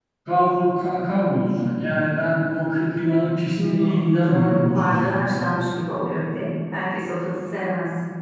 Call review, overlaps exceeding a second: present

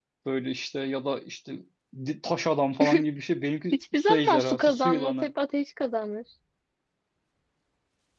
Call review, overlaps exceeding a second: present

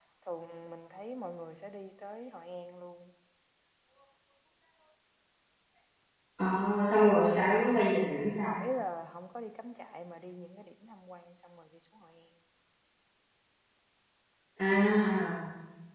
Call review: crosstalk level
none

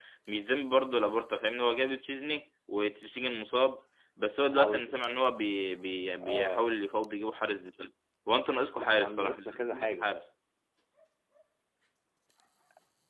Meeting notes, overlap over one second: present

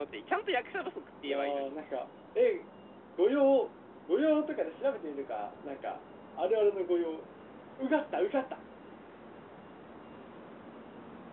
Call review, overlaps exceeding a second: none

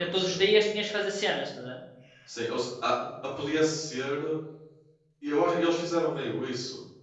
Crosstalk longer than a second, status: none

